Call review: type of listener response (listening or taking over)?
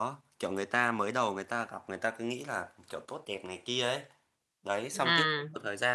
listening